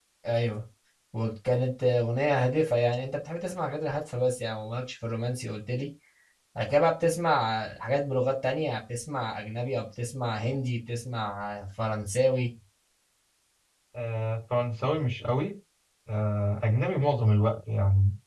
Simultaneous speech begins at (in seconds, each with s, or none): none